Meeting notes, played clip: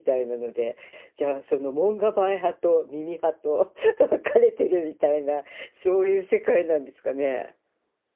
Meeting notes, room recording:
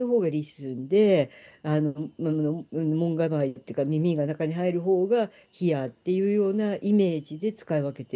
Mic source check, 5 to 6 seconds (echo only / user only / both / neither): user only